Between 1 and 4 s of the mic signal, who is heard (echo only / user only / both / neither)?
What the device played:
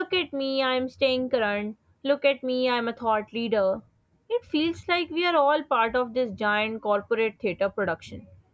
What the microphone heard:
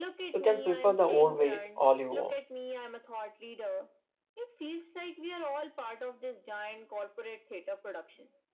both